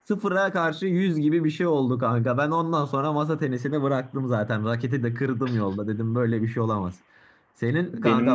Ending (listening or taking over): listening